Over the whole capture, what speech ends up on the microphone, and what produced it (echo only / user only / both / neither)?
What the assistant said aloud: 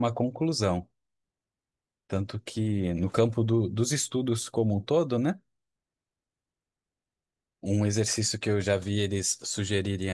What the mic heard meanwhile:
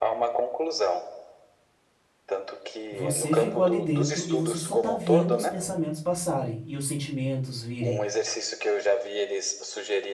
both